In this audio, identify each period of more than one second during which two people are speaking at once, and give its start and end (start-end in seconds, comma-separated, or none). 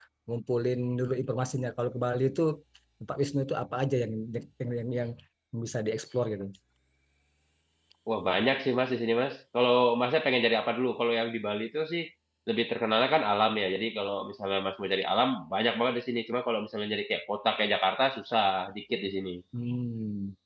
none